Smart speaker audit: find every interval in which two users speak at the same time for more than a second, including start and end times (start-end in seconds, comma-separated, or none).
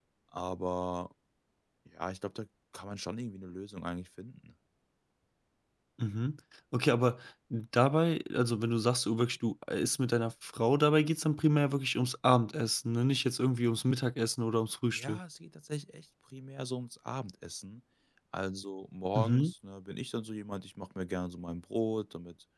none